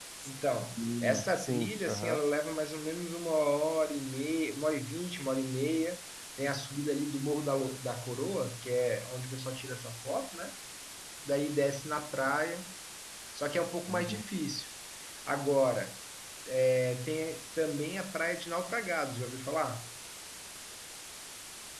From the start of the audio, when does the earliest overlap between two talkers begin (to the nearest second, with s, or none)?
1 s